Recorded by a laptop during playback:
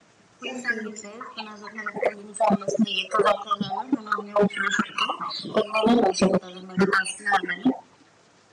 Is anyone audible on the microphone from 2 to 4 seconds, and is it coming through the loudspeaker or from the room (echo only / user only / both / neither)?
echo only